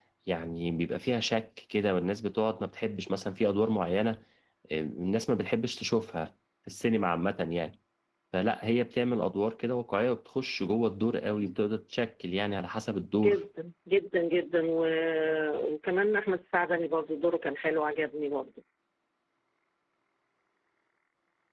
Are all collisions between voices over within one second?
Yes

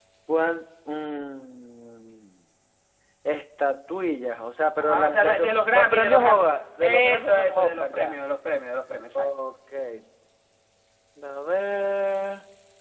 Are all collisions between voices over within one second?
No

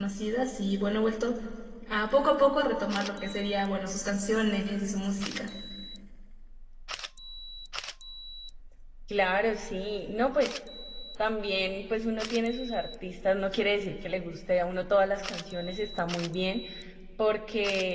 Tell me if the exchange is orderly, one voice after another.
Yes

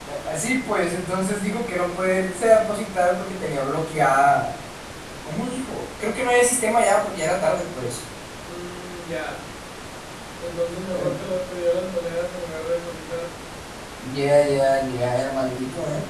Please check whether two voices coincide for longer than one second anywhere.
No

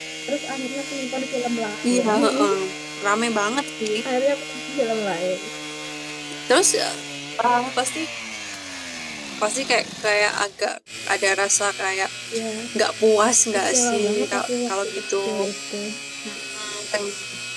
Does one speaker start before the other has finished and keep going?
Yes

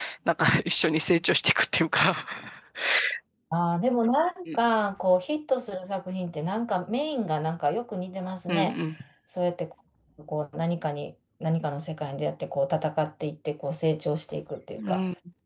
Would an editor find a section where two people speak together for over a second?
No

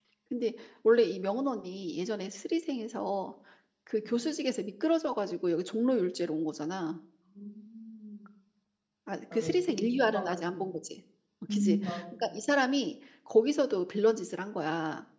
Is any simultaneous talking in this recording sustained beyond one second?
Yes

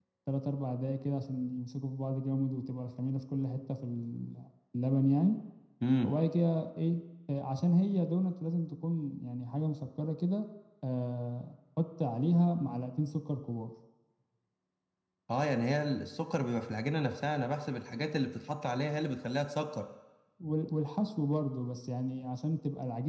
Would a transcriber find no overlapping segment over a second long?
Yes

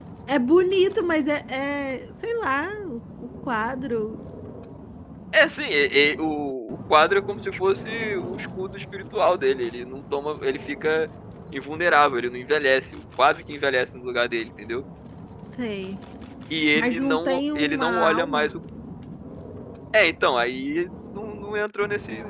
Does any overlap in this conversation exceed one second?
Yes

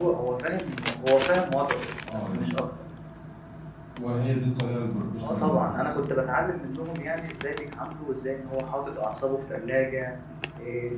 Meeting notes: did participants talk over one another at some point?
Yes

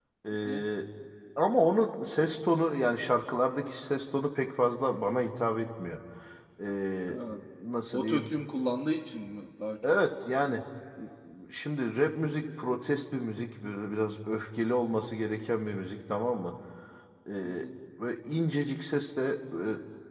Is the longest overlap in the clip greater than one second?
No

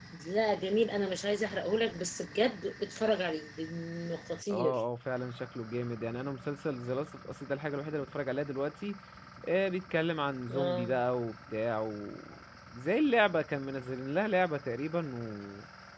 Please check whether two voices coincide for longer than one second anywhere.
No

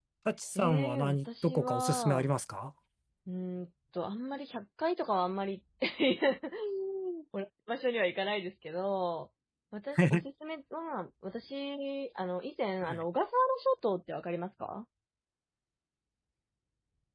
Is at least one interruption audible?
Yes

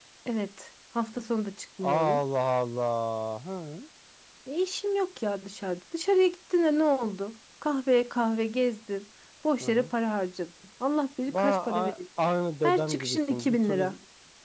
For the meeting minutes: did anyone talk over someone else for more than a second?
Yes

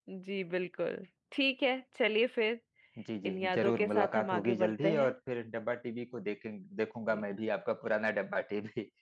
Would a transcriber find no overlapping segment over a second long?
No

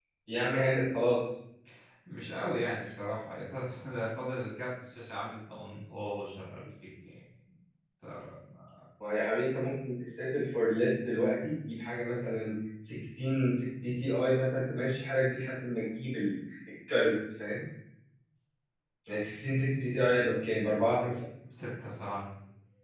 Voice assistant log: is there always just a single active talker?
Yes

